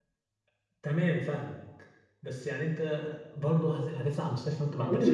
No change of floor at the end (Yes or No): No